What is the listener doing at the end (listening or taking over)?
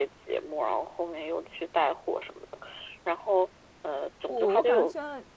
taking over